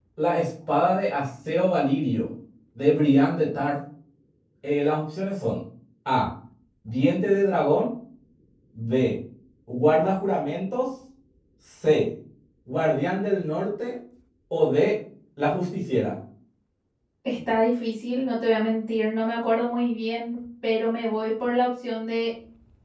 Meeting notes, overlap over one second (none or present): none